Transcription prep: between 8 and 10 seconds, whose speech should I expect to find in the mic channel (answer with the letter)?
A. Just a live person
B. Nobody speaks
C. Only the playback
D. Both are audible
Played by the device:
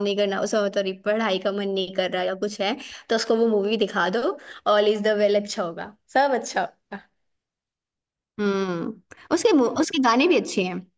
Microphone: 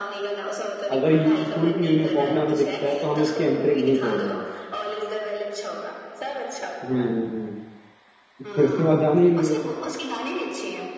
D